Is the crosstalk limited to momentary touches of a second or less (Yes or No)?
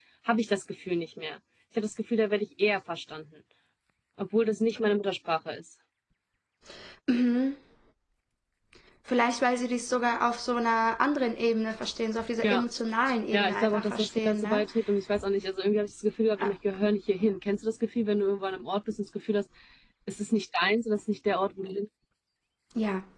No